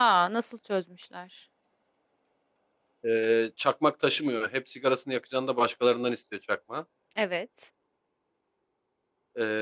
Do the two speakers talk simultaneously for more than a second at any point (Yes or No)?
No